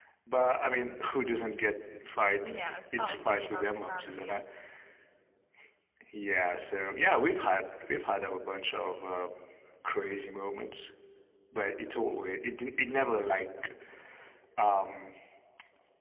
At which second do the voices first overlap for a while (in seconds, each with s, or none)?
3.0 s